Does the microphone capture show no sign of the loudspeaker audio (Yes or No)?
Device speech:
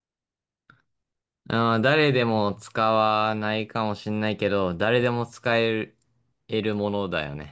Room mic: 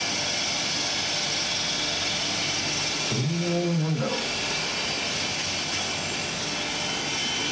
Yes